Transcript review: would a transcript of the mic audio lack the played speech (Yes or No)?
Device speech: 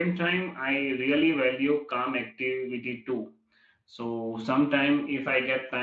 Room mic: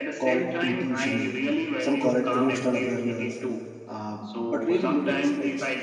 No